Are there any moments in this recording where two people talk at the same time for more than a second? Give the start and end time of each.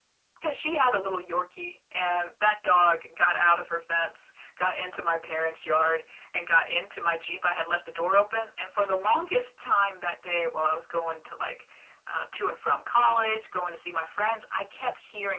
none

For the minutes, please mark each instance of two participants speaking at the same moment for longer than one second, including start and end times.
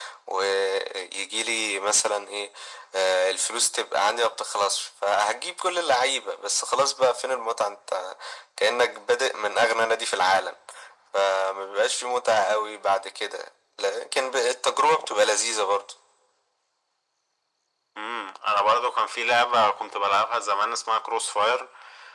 none

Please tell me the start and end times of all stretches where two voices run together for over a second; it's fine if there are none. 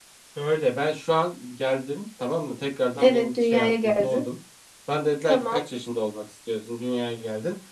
3.0-4.2

